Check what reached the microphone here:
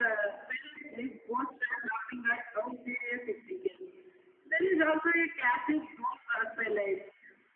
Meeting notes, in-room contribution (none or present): none